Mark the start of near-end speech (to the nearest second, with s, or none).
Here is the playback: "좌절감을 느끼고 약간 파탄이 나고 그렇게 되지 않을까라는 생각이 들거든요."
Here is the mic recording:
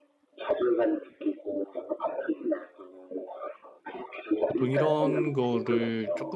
4 s